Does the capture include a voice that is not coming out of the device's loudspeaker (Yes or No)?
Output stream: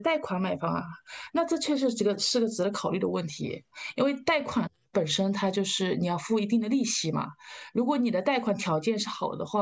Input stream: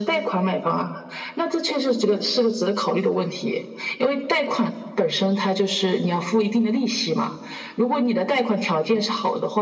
No